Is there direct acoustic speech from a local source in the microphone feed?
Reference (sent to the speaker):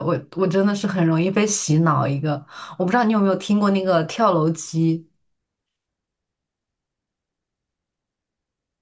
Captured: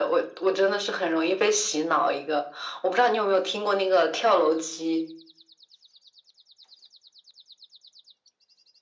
No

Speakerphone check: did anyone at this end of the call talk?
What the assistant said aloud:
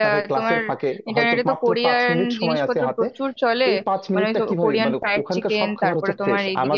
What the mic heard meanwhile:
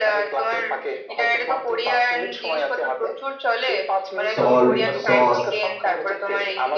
Yes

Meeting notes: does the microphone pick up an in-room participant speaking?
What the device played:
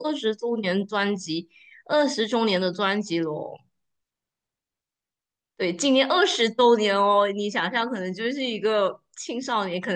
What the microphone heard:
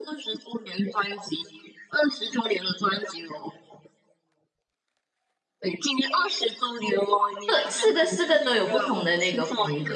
Yes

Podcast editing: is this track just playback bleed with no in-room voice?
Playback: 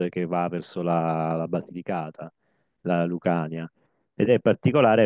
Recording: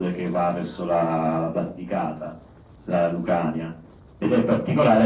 Yes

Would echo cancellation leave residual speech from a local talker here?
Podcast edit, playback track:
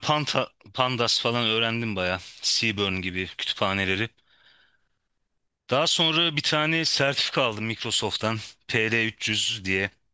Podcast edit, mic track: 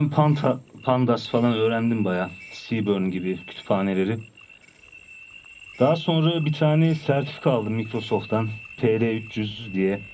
No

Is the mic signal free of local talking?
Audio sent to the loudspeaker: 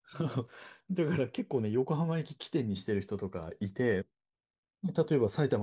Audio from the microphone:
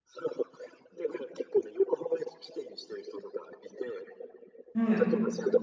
No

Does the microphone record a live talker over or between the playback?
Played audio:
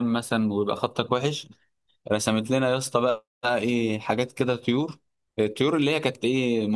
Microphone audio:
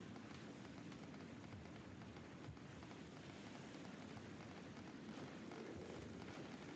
No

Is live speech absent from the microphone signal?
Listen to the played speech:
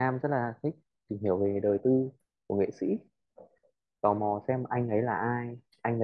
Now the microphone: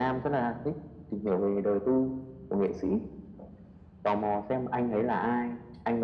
Yes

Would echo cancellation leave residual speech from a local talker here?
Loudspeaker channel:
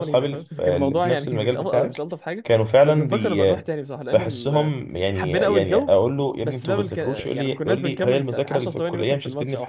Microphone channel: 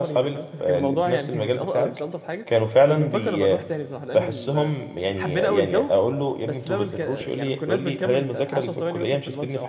No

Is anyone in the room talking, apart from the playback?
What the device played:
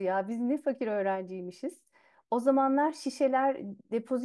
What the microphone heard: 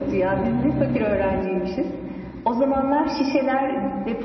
No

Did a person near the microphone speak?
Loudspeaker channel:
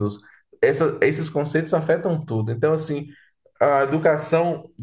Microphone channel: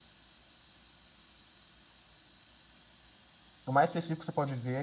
Yes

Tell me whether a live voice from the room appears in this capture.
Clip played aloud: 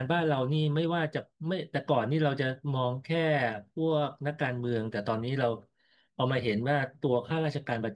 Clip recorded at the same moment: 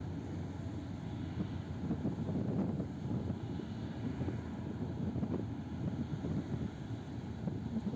No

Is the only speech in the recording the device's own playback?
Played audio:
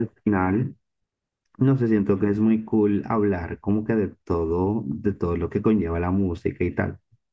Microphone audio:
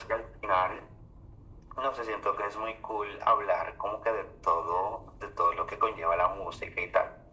Yes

